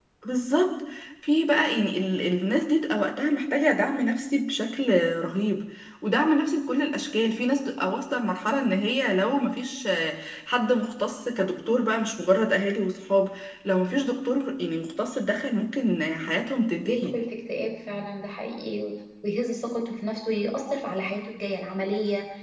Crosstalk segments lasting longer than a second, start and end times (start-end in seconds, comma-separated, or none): none